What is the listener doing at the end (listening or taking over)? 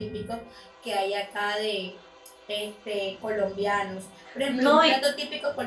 listening